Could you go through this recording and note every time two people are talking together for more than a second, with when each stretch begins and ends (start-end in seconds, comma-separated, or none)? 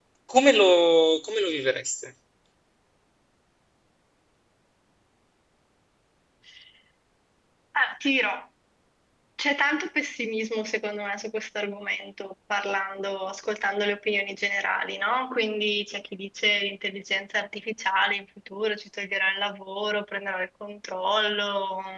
none